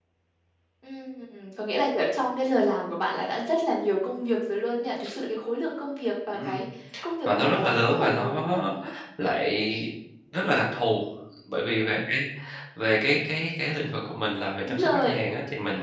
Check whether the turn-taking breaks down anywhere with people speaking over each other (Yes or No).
Yes